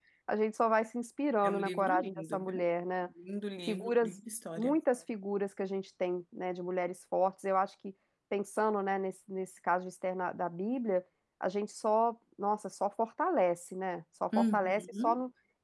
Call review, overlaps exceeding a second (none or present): present